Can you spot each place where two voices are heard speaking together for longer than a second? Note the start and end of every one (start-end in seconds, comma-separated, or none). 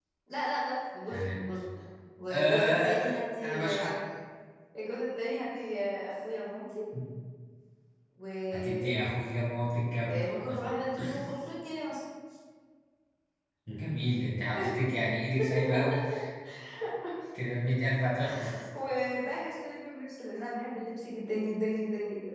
2.3-3.9